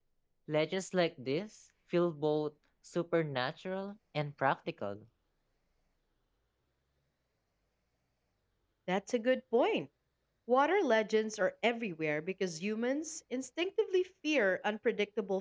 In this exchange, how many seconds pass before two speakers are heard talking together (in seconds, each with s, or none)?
none